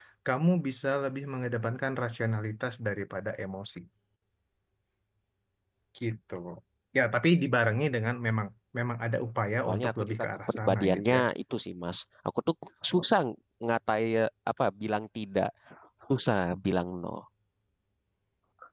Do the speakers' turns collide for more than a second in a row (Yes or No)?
Yes